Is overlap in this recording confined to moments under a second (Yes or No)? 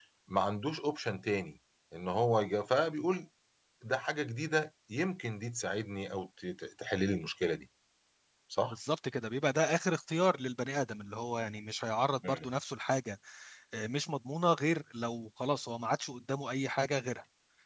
Yes